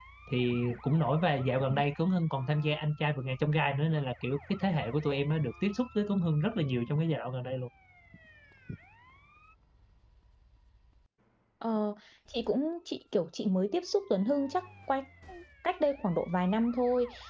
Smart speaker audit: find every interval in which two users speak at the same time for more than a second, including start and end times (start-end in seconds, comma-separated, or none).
none